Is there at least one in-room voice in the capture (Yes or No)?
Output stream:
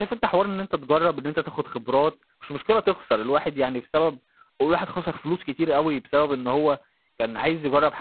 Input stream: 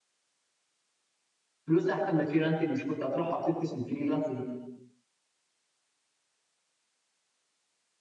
Yes